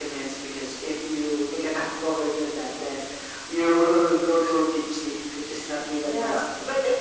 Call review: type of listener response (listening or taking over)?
taking over